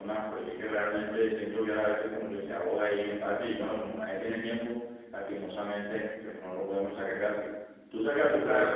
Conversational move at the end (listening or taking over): taking over